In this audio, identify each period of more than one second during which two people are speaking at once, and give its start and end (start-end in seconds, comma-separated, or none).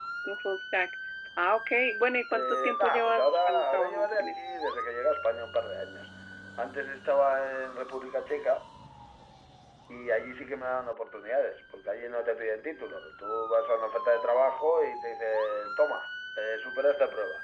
2.3-4.4